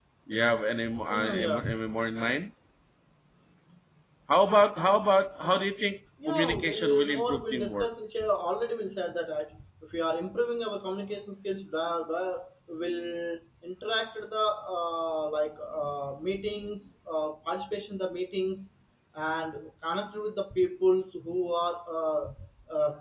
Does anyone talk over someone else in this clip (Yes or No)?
Yes